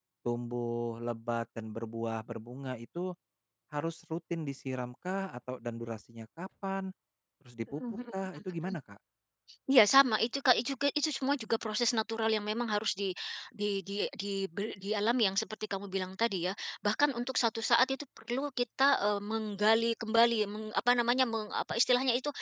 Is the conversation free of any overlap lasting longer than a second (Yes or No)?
Yes